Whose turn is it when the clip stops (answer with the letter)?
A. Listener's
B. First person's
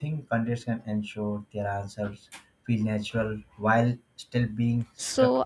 A